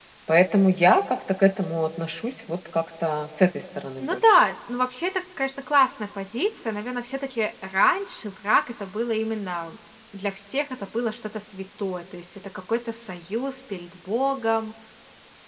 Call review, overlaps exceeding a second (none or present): none